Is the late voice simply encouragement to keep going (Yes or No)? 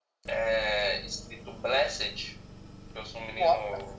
Yes